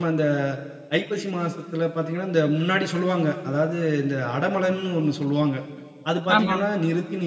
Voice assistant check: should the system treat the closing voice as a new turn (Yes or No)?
No